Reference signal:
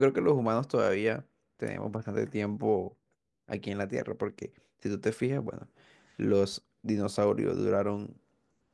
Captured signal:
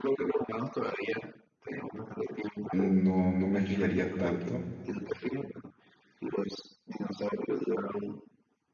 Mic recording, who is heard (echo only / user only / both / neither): both